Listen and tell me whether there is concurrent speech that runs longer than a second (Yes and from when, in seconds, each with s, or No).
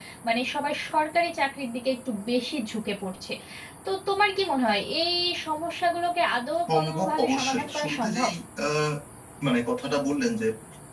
Yes, from 6.7 s